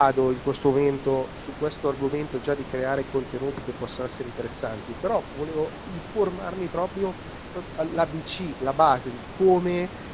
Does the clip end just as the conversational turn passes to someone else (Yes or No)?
No